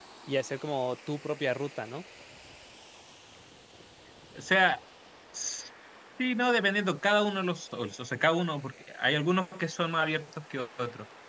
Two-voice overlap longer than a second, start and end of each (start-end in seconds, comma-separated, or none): none